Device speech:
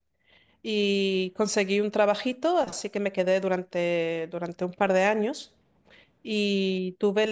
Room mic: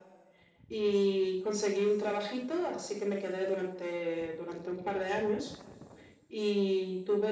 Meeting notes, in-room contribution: none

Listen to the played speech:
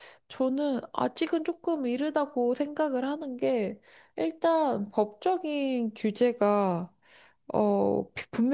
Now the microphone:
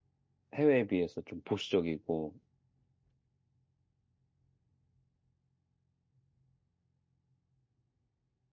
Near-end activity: present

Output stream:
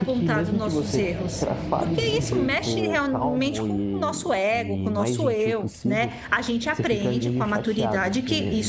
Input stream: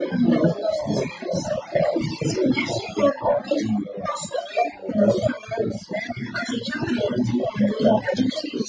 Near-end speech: none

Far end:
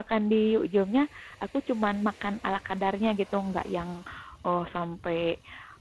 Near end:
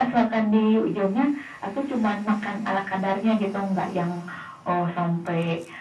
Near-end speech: none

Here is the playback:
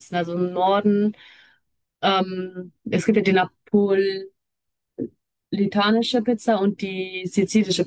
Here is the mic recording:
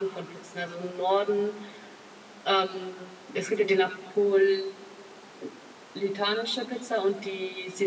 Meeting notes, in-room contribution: none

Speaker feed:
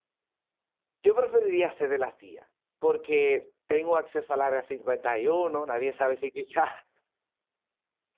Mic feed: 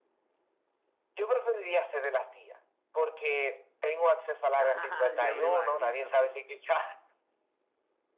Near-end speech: present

